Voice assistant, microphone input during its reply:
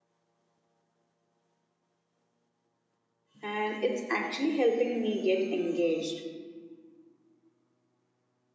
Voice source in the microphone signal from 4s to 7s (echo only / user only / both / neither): user only